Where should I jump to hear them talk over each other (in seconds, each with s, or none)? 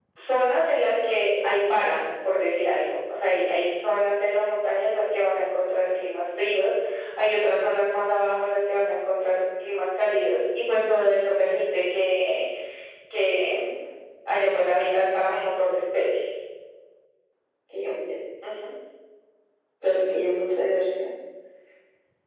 none